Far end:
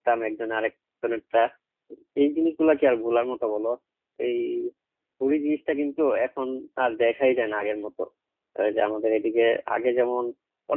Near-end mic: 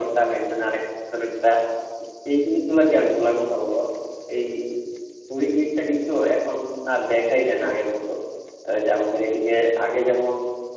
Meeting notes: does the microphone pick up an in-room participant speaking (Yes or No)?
No